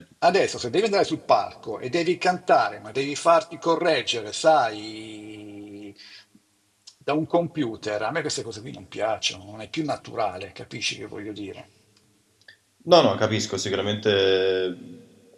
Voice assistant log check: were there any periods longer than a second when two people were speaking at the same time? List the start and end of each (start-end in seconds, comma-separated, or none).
none